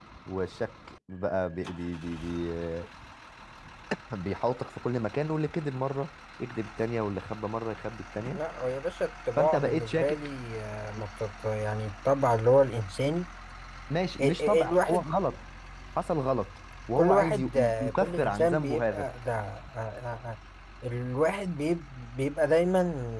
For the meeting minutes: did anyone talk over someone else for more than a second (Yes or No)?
Yes